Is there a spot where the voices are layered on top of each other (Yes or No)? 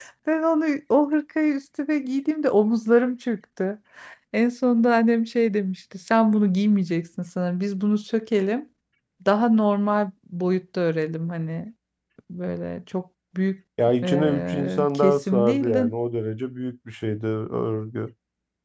Yes